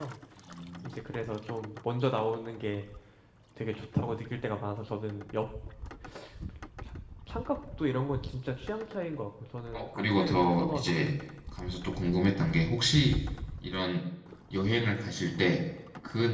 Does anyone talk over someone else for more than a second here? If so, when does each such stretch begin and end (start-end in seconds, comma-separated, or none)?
9.7-11.0